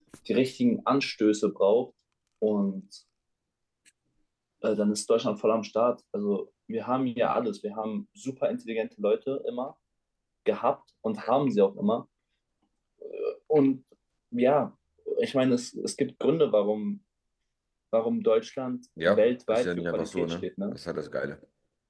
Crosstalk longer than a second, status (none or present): present